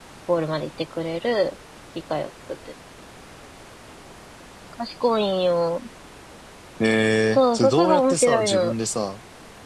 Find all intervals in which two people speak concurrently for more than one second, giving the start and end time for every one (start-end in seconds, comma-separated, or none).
7.3-8.7